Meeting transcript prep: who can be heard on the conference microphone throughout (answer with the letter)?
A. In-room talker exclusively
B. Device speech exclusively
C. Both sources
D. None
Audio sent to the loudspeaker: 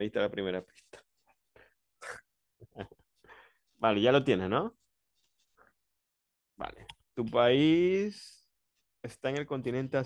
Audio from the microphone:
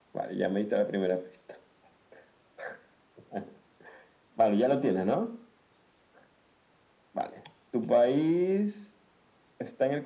B